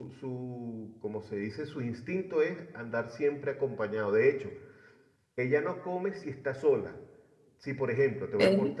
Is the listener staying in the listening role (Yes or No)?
Yes